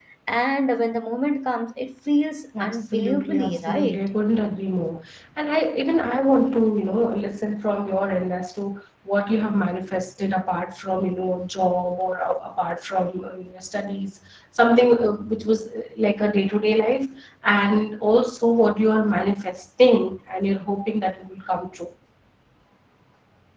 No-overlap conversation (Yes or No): No